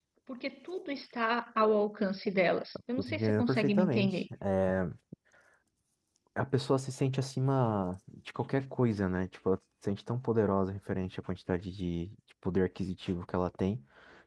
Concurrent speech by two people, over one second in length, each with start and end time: 3.0-4.2

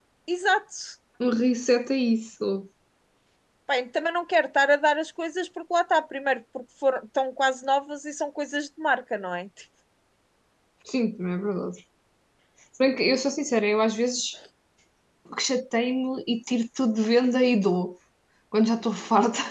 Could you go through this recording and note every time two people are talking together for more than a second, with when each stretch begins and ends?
none

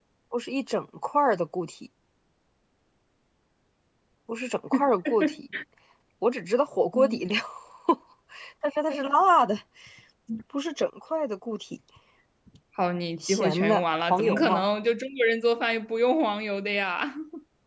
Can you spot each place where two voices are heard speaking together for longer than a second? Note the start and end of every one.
13.2-14.6

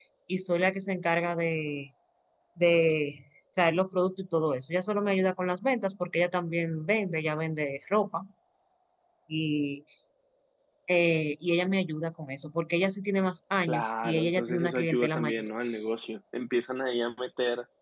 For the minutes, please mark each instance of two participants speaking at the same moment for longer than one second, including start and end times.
13.7-15.5

